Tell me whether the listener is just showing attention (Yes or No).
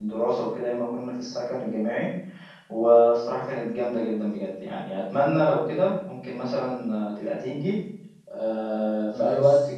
Yes